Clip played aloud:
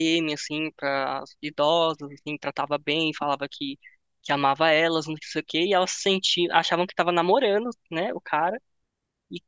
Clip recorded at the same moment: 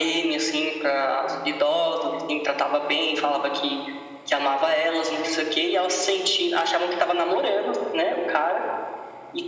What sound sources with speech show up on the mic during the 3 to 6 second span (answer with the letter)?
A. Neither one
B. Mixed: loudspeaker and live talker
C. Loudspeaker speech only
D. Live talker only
C